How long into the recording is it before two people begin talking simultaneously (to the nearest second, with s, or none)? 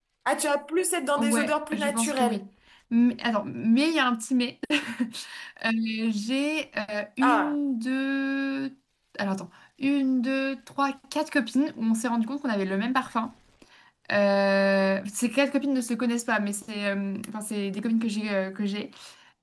1 s